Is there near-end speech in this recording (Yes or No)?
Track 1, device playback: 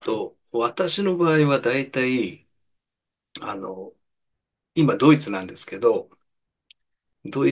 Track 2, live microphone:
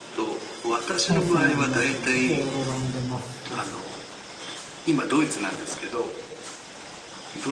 Yes